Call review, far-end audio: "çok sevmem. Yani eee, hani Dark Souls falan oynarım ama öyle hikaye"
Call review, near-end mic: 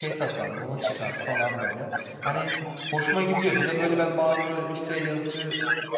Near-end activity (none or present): present